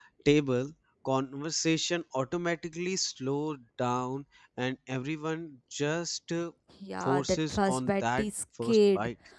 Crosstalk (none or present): present